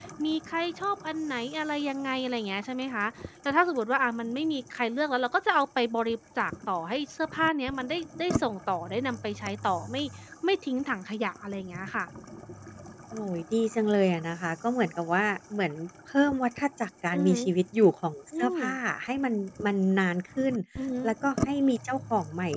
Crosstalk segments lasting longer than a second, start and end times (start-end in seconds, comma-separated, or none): none